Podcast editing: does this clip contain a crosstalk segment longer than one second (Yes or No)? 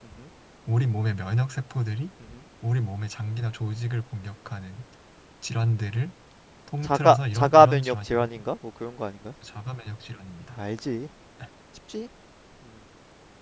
Yes